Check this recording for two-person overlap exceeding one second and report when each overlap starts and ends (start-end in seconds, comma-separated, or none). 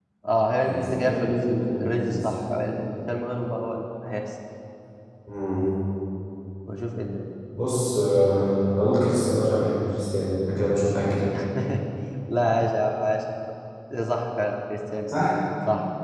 0.6-2.3